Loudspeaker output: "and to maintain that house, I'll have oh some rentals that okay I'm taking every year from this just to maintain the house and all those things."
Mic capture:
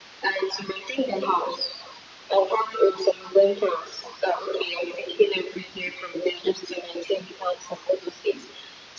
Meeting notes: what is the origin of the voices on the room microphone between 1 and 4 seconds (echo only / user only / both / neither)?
echo only